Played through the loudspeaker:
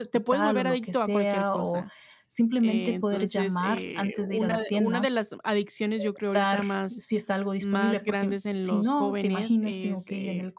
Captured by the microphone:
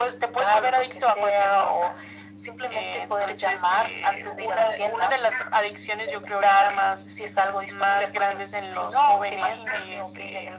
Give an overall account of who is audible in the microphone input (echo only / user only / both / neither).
echo only